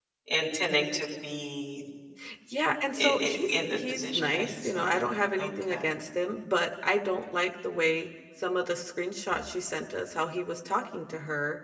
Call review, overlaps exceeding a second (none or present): present